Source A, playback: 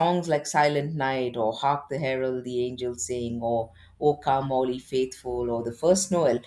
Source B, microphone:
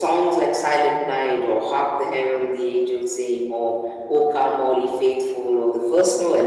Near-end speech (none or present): none